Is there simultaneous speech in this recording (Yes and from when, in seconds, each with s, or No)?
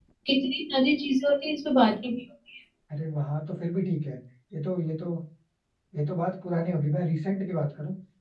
No